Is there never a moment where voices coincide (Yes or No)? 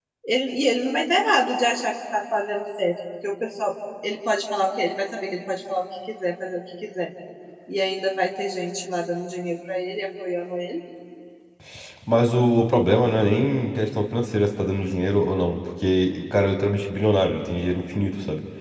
Yes